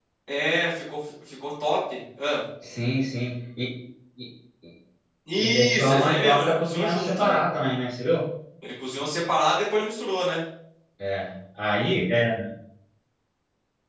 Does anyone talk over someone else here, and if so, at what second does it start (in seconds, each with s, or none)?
5.4 s